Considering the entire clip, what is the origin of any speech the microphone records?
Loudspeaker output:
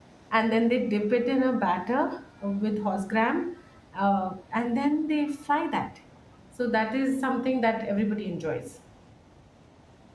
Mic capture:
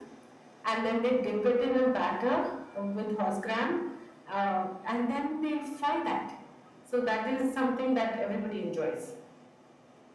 echo only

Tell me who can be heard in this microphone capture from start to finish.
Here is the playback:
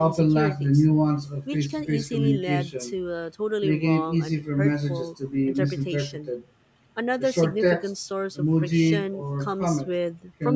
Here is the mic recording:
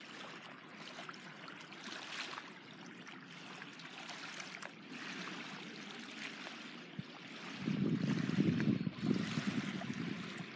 neither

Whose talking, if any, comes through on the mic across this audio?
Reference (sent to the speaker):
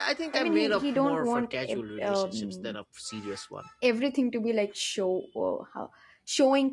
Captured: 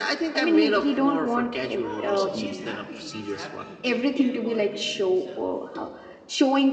both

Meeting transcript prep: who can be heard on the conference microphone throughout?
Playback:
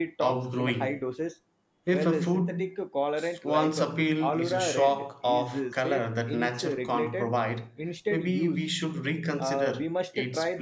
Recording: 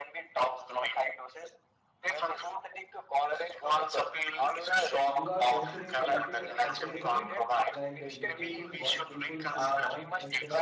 both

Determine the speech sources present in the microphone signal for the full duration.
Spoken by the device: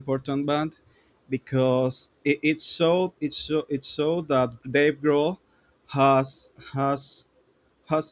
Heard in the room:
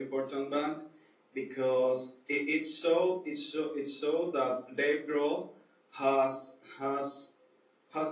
echo only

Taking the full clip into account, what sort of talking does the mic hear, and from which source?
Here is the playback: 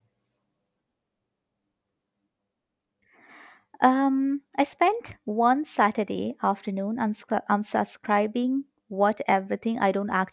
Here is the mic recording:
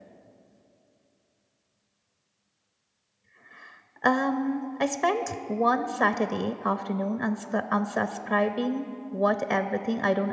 echo only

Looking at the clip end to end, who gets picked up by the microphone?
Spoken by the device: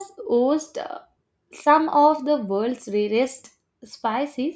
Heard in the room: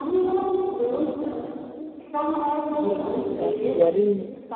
both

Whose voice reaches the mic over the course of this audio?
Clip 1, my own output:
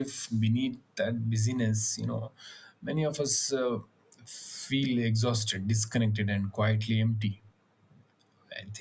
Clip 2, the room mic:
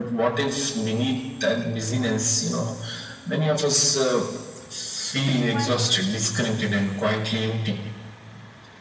both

